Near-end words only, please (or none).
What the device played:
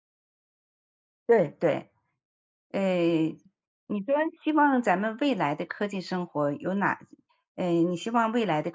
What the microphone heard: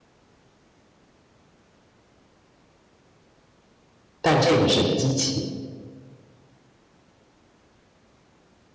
但这个是机器。